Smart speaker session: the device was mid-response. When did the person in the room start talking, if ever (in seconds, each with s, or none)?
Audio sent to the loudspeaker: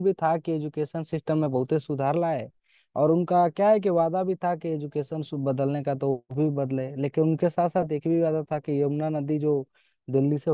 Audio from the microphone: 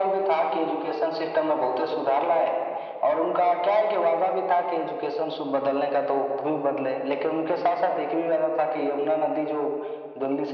none